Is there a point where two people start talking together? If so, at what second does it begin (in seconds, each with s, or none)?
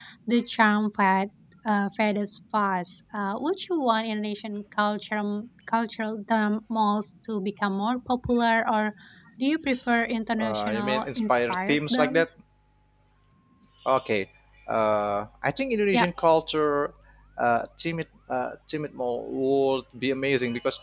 10.4 s